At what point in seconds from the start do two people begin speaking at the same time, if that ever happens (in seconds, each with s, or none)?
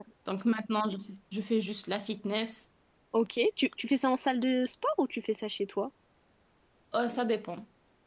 none